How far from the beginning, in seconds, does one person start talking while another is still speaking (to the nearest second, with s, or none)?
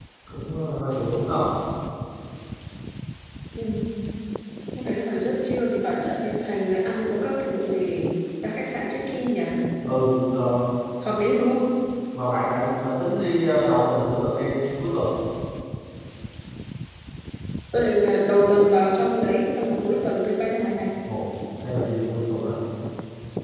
none